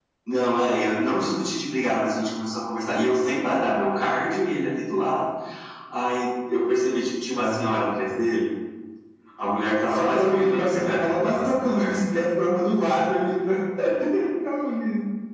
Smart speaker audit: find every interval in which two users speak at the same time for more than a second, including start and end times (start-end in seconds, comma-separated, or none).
9.9-12.0